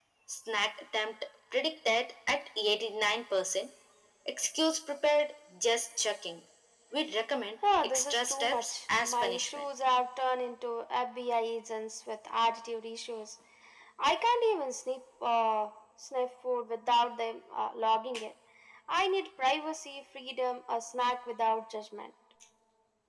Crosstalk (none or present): present